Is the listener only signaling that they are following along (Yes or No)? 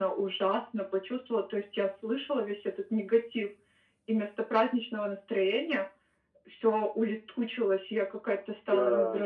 Yes